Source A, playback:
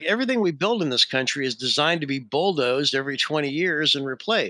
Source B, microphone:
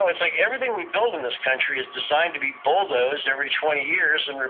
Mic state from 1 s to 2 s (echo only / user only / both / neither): echo only